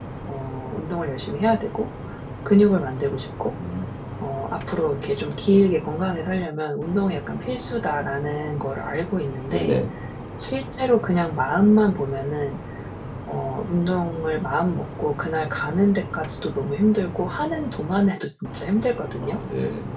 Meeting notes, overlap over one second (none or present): none